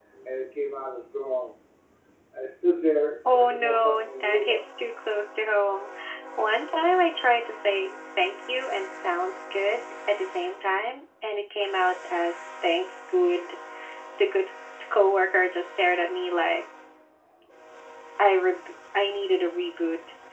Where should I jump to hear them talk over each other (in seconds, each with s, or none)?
3.2 s